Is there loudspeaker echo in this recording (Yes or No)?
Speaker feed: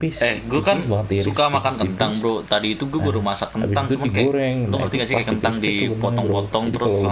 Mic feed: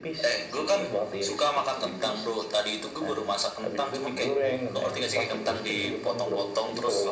Yes